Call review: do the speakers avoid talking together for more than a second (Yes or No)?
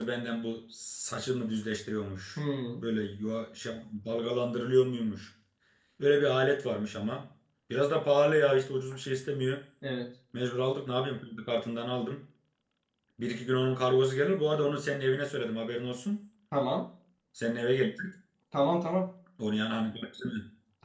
Yes